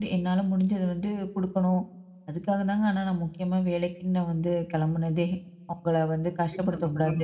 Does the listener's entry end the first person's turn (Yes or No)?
Yes